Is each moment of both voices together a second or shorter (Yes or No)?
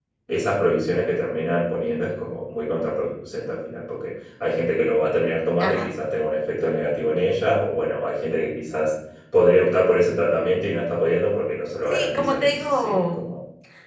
No